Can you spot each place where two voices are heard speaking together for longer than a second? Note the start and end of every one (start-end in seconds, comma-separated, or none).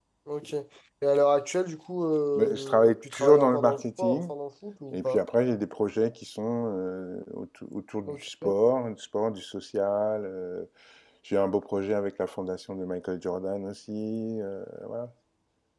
2.4-4.3